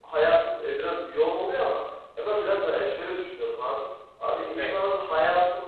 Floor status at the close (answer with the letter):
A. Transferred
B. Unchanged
B